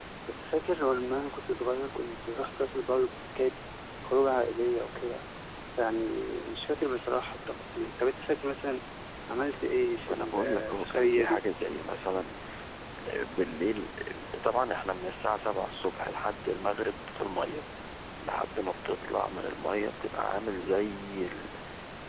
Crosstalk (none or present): present